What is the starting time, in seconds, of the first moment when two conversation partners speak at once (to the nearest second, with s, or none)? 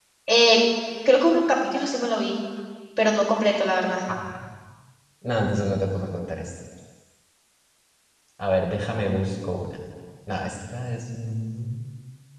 none